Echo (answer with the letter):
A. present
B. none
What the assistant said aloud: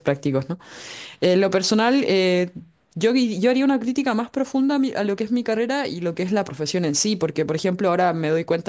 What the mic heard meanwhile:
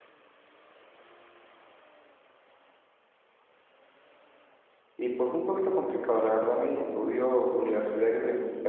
B